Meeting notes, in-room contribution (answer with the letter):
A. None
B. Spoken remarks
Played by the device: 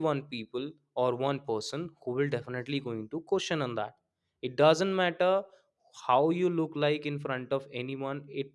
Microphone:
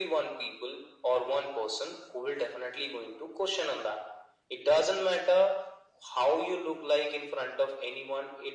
A